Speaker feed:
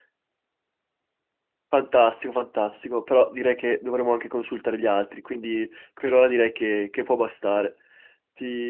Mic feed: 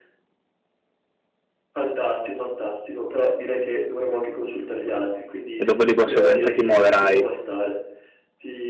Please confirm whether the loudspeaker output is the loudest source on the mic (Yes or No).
No